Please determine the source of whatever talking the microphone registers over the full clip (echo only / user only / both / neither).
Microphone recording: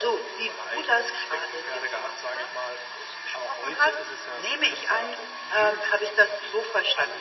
echo only